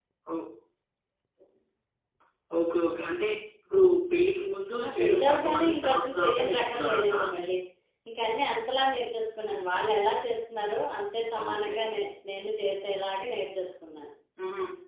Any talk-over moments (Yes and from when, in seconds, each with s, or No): Yes, from 4.8 s